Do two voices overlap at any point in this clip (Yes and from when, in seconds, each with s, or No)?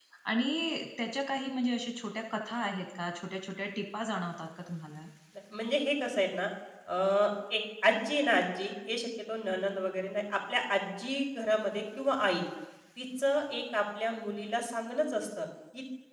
No